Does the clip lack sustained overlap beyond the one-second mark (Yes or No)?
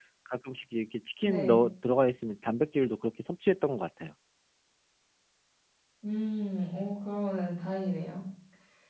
Yes